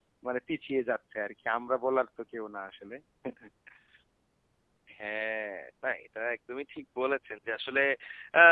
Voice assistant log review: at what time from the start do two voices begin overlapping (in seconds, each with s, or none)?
none